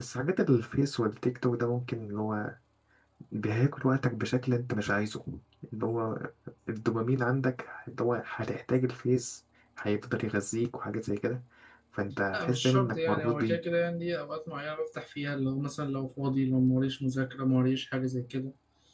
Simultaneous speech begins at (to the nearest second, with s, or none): 12 s